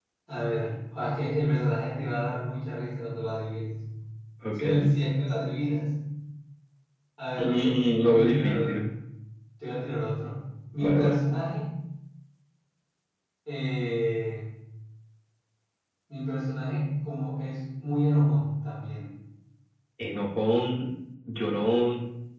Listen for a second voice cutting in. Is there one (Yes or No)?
Yes